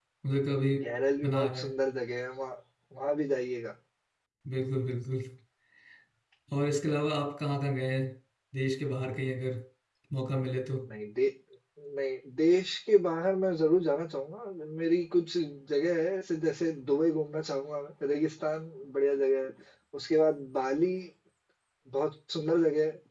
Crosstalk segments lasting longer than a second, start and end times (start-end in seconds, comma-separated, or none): none